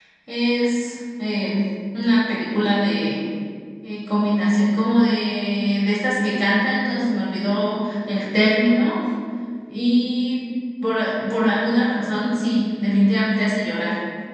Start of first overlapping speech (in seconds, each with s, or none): none